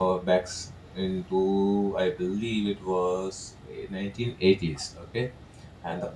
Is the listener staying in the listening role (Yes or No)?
Yes